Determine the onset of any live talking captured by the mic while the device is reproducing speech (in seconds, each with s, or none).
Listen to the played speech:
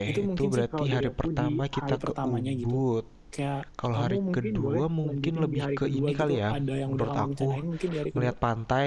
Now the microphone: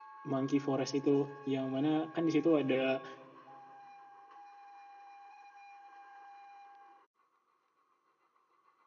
0.3 s